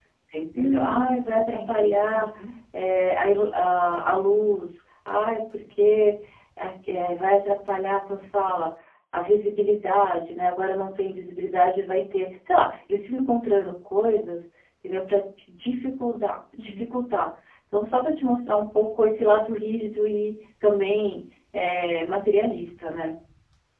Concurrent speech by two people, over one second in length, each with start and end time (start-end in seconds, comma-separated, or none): 0.6-2.2